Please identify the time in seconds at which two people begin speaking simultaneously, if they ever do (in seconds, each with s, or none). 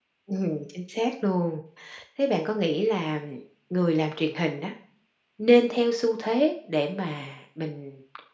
none